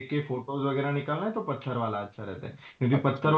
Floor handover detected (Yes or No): No